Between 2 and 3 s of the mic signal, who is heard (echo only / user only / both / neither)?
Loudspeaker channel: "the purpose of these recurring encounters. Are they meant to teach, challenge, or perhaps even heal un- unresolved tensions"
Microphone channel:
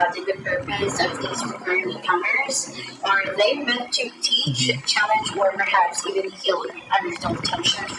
echo only